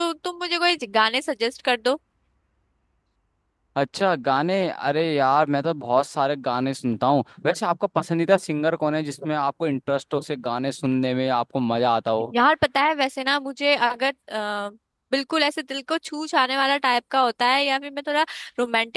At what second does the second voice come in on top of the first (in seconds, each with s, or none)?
none